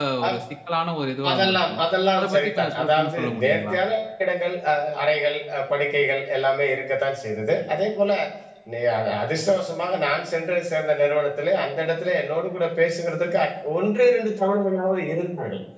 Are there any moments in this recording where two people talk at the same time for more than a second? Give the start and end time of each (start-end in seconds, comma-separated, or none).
2.2-3.7